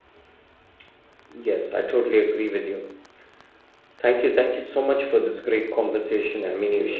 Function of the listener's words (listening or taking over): taking over